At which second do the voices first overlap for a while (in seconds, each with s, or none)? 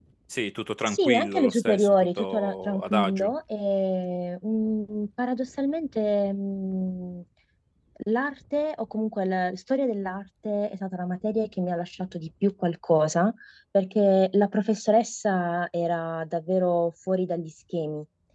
0.9 s